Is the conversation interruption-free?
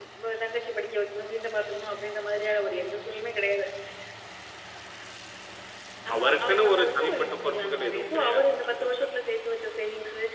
No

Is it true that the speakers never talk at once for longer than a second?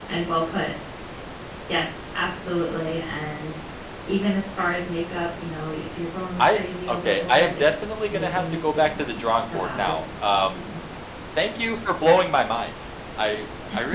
No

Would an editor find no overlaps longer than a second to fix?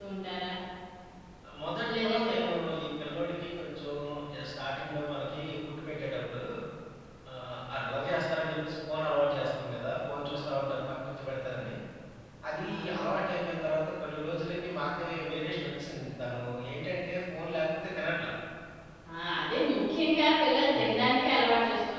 Yes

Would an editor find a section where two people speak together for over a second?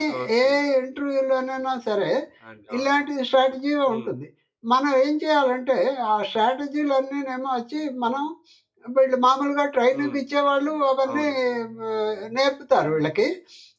No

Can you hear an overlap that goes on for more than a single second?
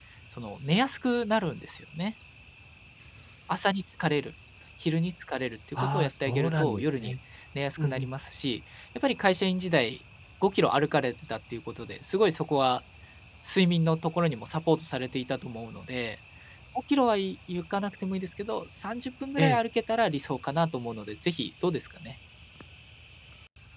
Yes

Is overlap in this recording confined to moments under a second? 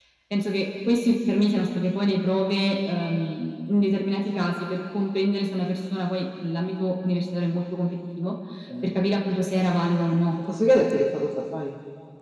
Yes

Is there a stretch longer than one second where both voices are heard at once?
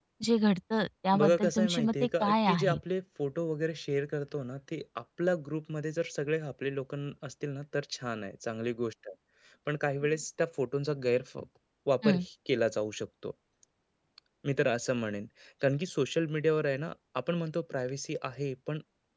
Yes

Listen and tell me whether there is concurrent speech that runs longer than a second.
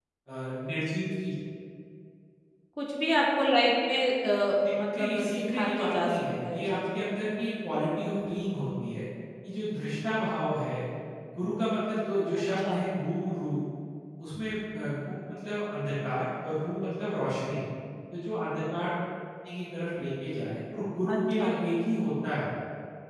Yes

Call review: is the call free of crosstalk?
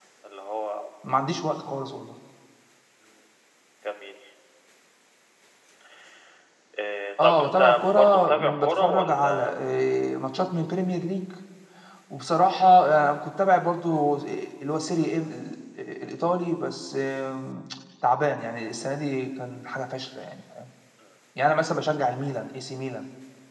No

